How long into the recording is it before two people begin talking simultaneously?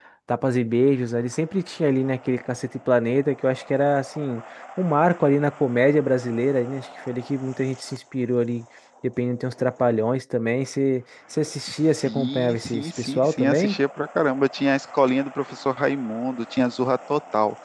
12.1 s

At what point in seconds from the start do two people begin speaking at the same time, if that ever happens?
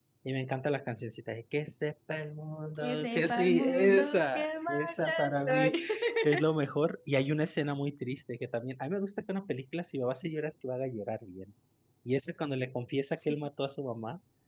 2.8 s

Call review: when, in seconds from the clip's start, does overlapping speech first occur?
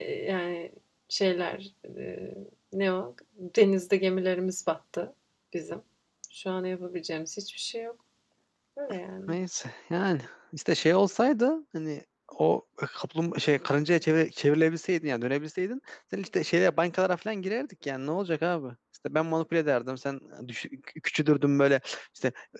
none

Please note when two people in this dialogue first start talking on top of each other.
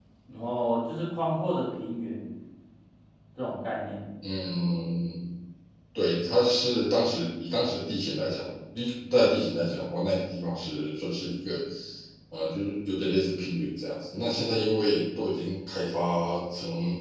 none

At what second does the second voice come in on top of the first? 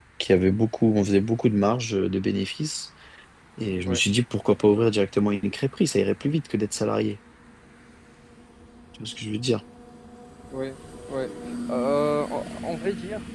none

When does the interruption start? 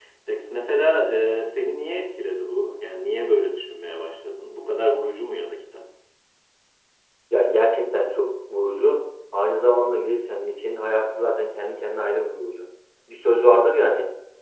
none

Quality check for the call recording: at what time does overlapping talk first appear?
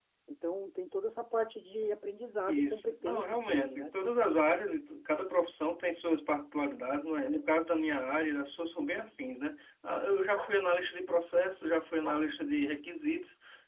2.4 s

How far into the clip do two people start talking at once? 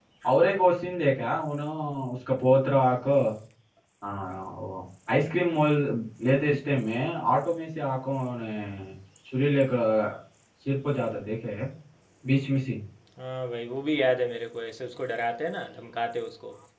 none

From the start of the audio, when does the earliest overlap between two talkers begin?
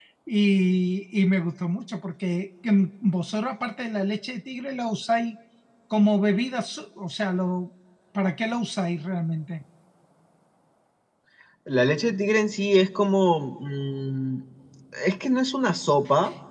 none

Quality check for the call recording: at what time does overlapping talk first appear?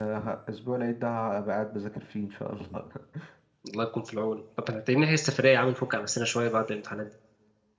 none

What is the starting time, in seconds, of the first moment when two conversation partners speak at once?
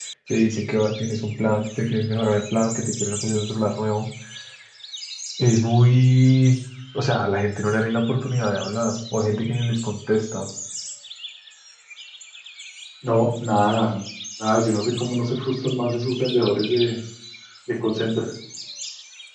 none

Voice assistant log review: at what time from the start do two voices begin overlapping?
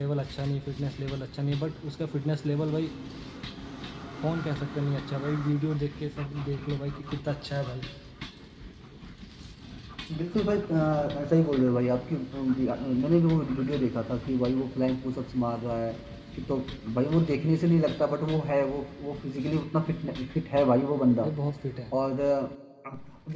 none

